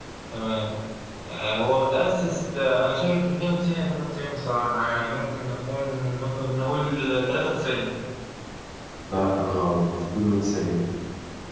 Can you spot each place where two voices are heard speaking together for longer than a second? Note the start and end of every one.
none

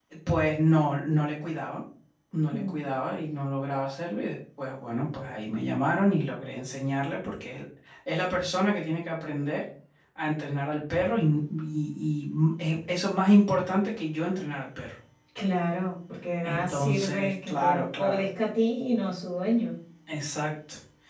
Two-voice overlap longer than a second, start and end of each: 16.4-18.3

